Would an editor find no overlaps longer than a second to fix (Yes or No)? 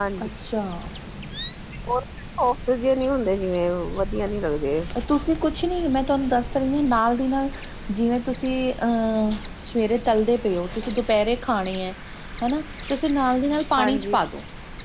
Yes